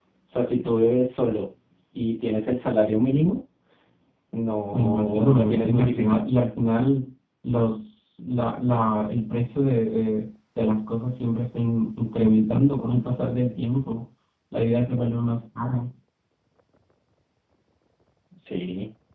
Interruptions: present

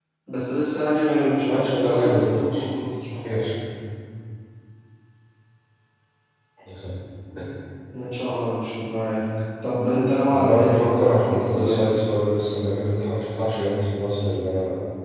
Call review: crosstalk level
present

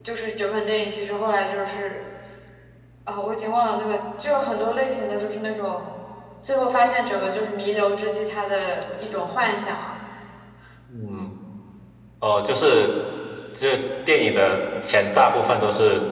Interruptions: none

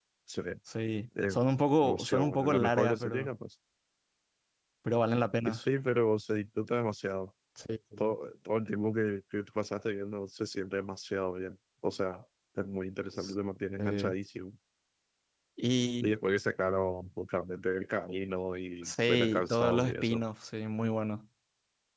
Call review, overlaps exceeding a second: present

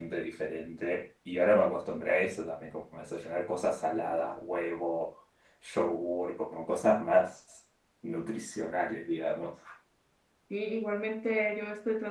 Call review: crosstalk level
none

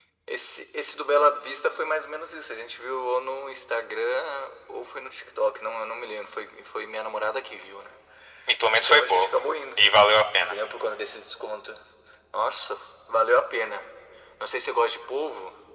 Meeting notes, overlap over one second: none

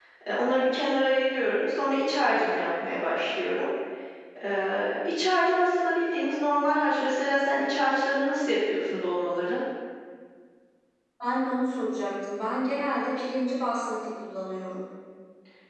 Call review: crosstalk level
none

